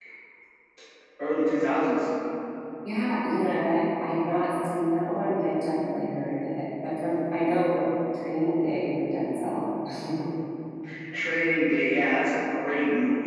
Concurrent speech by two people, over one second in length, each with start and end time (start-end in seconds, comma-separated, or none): none